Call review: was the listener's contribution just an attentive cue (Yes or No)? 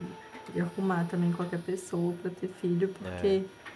No